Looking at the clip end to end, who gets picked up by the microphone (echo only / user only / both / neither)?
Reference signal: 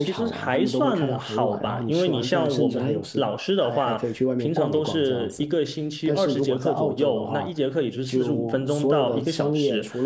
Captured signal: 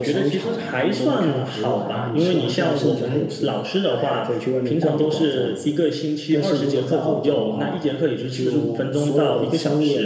echo only